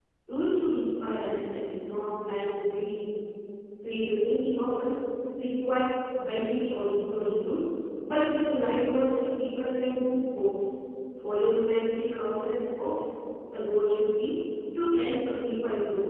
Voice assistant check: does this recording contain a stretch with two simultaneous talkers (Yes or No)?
No